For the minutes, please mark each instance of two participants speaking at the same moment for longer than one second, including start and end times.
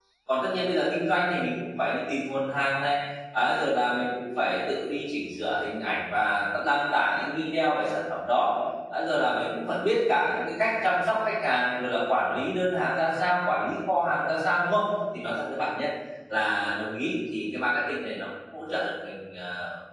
none

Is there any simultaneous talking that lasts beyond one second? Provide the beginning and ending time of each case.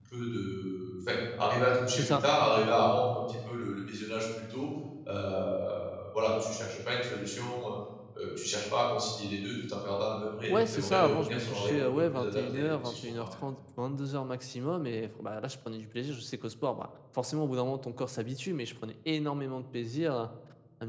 10.2-13.3

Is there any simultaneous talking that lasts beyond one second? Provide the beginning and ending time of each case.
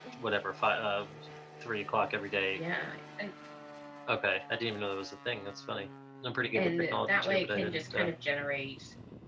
6.5-8.1

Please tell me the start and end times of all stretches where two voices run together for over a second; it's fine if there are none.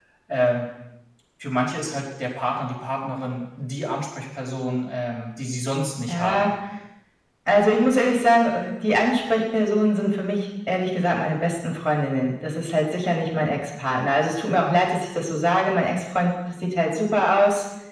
none

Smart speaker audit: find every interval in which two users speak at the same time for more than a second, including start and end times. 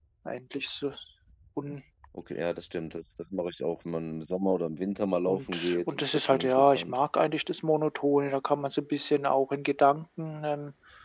5.3-7.0

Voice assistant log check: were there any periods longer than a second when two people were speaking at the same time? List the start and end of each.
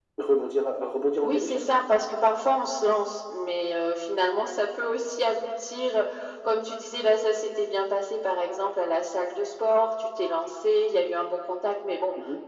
none

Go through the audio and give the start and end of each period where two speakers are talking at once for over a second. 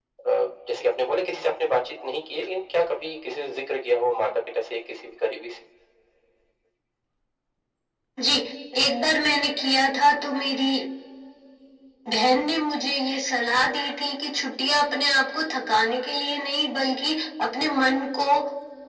none

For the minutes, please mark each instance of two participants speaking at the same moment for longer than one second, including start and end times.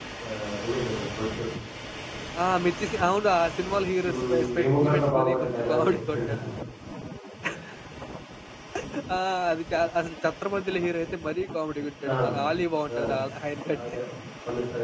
4.1-6.5

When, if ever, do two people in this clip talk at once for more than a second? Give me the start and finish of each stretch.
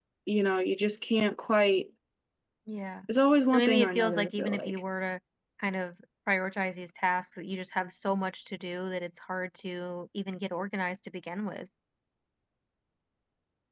3.5-4.8

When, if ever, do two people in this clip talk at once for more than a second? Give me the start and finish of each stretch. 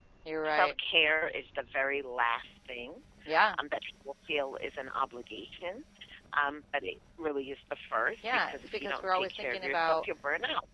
8.2-10.0

